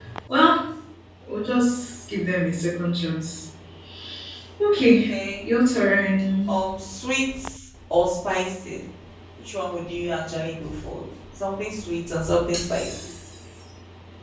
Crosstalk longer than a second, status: none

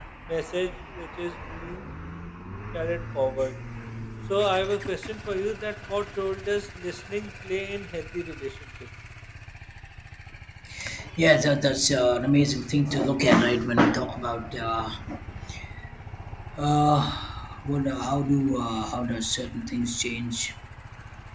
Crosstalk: none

